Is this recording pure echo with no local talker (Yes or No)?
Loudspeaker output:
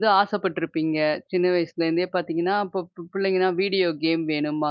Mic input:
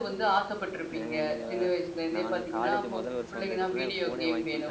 No